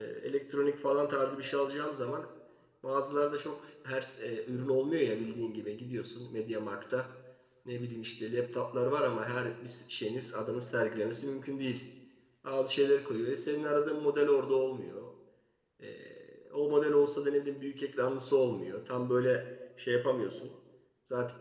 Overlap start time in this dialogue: none

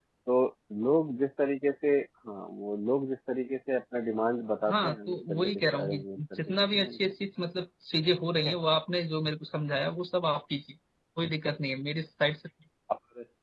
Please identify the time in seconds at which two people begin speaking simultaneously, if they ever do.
4.6 s

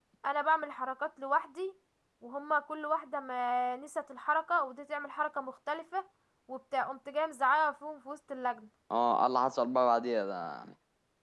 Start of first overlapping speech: none

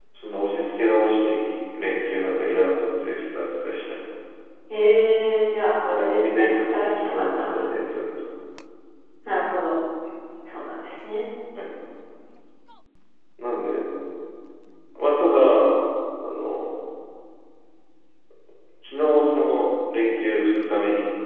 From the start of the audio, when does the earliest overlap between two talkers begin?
5.8 s

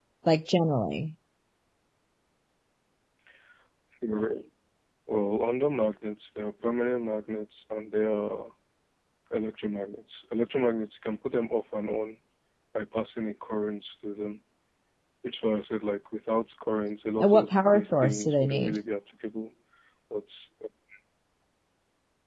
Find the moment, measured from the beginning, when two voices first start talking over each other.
17.2 s

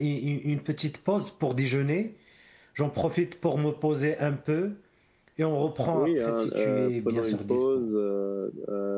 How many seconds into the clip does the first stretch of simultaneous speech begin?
5.9 s

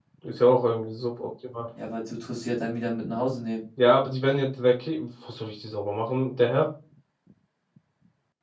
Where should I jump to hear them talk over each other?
none

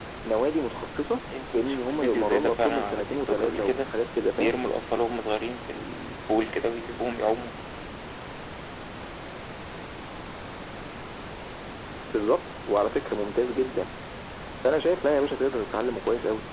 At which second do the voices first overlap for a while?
1.3 s

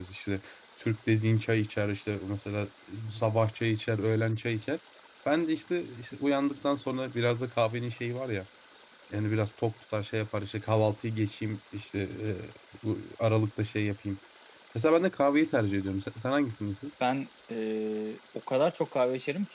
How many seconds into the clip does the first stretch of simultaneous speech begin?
none

